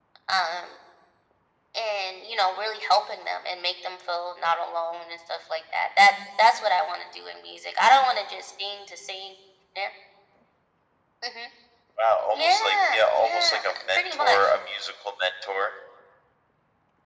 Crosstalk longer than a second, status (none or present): present